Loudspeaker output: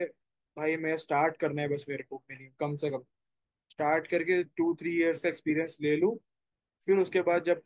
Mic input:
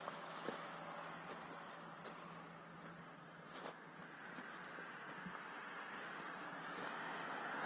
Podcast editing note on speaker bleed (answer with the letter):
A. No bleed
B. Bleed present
A